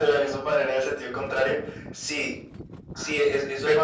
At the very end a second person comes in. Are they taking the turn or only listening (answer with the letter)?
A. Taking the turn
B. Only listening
B